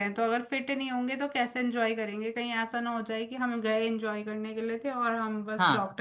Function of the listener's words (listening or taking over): taking over